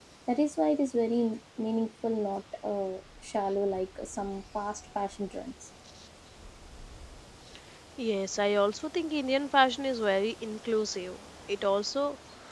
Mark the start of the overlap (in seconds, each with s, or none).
none